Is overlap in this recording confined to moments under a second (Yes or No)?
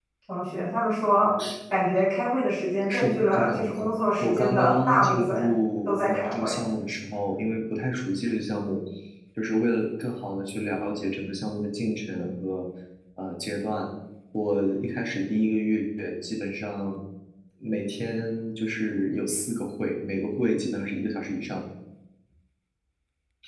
No